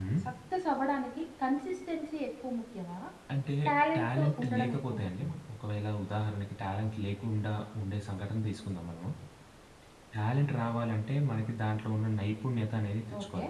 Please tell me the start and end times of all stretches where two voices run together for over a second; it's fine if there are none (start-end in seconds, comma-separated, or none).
4.0-5.4